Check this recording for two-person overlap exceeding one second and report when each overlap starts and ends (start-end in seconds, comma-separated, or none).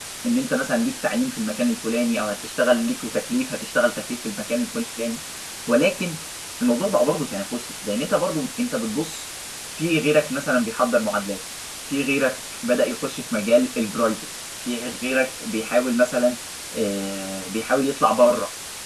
none